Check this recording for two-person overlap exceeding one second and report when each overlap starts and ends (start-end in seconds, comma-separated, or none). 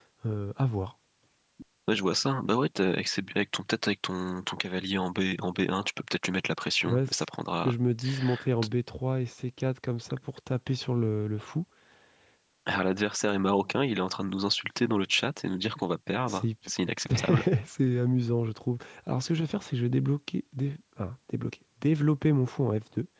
none